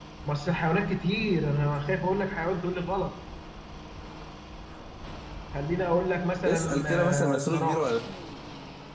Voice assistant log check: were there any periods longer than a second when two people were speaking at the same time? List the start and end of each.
6.5-7.9

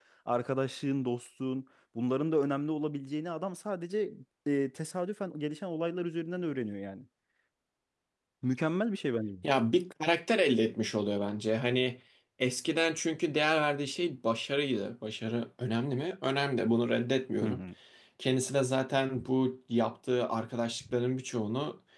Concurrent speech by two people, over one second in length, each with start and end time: none

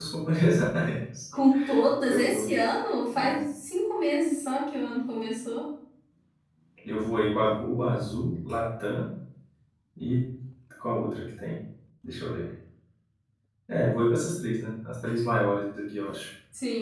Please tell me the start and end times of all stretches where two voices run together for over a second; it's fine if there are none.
none

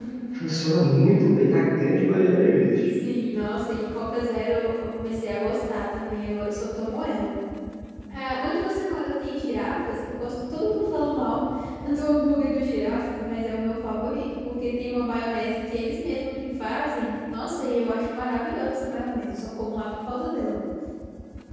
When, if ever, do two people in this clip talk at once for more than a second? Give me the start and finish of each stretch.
none

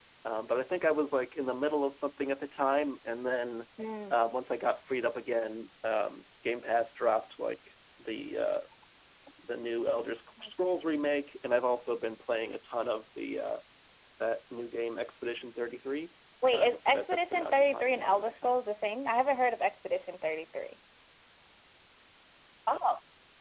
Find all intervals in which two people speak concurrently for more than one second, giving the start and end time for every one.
16.5-18.6

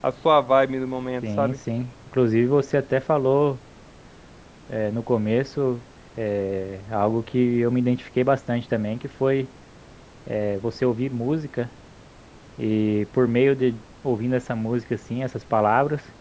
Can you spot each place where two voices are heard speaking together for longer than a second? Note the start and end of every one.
none

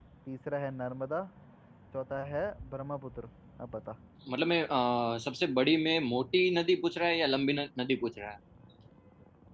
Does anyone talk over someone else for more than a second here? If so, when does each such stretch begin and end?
none

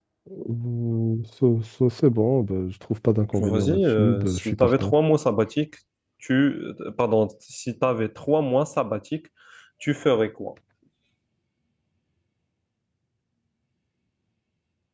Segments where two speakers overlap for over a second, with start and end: 3.4-4.9

